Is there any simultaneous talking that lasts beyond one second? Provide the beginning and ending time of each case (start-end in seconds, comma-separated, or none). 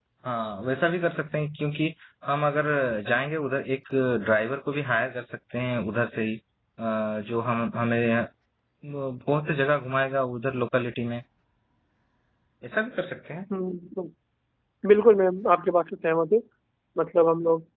none